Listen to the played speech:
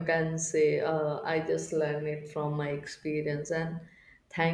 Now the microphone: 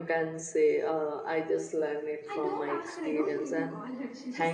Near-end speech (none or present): present